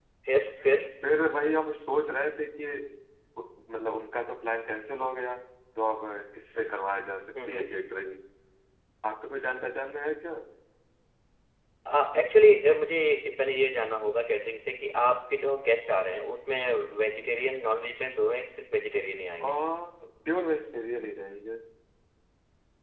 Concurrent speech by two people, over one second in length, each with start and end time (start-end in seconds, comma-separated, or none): none